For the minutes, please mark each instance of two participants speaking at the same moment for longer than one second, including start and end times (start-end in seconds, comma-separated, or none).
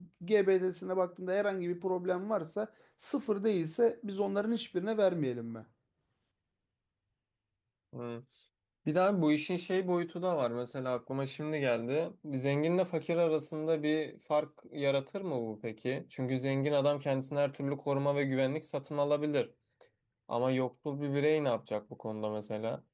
none